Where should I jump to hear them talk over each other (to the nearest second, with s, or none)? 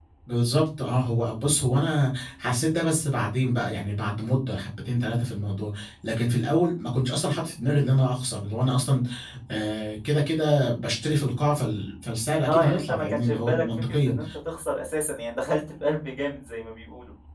12 s